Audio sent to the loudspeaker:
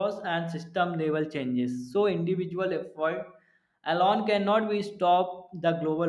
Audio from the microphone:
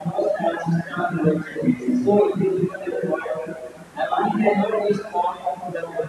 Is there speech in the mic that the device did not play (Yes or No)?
No